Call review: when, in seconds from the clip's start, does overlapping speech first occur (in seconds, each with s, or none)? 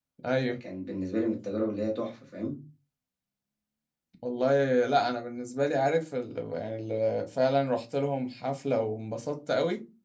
none